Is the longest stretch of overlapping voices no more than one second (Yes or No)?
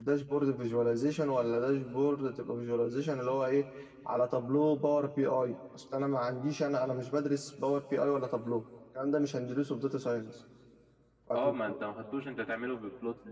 Yes